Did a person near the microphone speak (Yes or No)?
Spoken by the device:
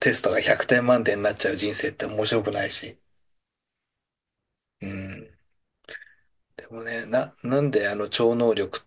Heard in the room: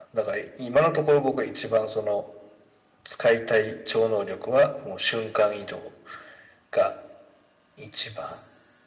Yes